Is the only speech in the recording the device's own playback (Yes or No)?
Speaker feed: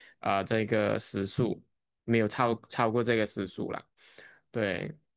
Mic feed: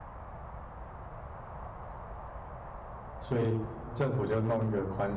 No